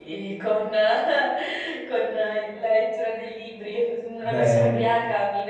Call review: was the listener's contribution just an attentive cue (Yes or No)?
Yes